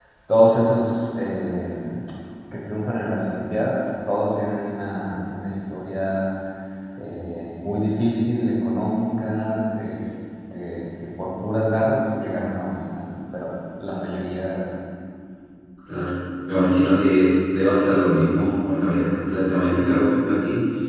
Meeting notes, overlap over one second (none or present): none